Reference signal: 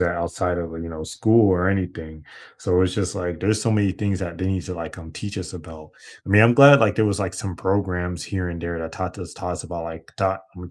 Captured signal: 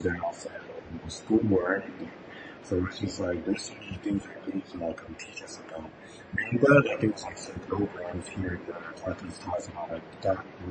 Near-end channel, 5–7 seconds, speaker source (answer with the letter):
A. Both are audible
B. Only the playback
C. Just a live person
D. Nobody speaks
B